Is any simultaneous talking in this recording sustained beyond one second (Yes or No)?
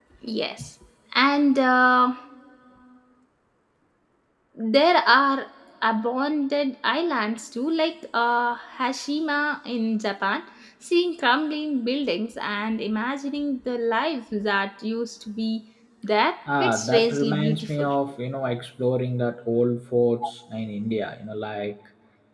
Yes